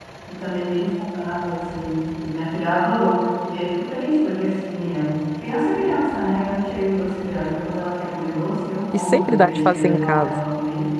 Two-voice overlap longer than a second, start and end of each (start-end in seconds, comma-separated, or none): 8.9-10.4